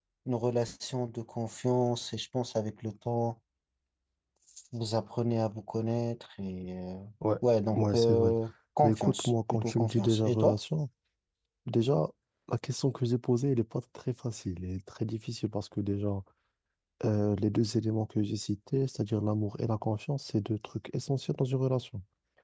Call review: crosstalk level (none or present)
present